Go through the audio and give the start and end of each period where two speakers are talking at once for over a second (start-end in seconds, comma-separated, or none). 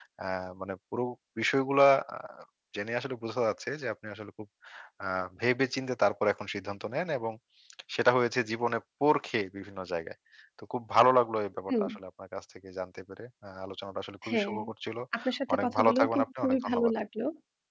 15.5-16.9